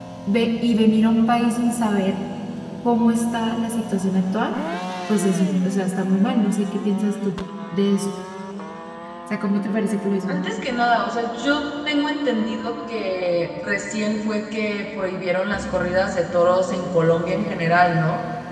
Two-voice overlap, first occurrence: none

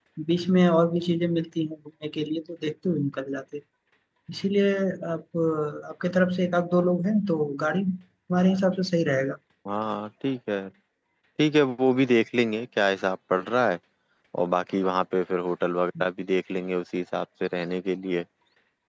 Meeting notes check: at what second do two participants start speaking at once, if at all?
none

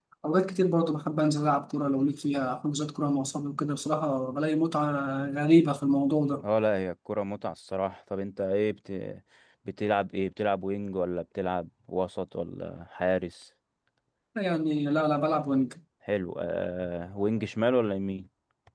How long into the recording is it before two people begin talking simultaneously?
none

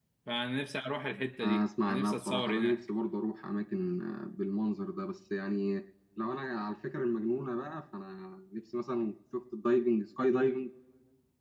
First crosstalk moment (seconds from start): 1.4 s

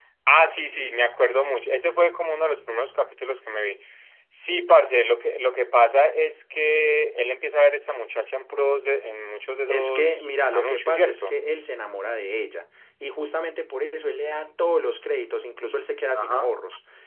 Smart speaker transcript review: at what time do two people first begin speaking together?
9.7 s

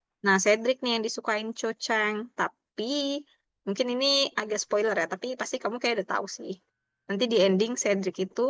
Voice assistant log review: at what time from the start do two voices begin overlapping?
none

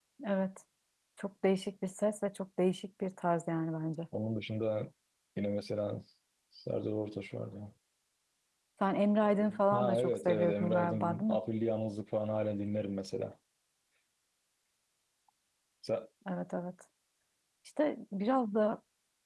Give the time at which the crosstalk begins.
9.7 s

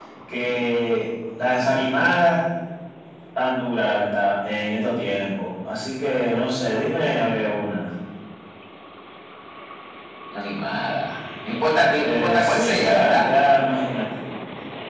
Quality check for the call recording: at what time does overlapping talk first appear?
12.0 s

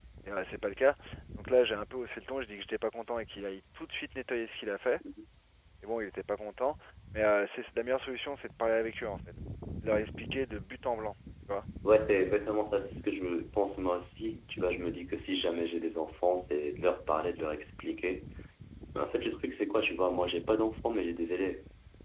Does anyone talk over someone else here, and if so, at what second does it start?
none

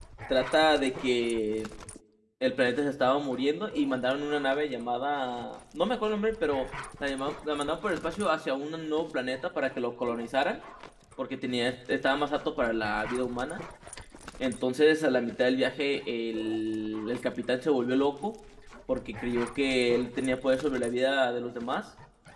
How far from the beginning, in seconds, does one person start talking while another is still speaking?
none

